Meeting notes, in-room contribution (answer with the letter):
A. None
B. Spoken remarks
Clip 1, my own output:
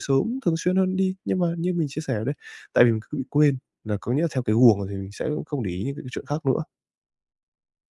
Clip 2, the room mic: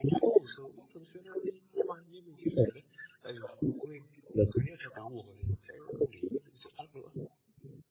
A